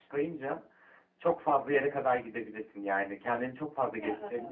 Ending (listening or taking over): listening